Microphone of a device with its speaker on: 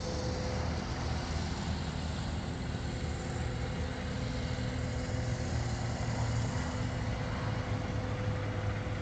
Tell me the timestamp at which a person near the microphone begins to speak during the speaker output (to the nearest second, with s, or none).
none